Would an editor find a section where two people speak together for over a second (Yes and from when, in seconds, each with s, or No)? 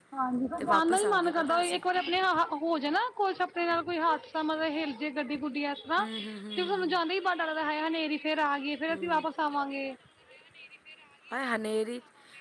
Yes, from 0.6 s